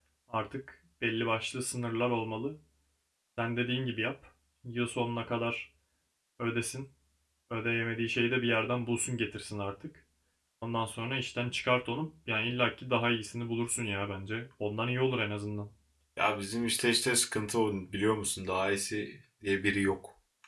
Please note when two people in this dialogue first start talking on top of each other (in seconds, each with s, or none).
none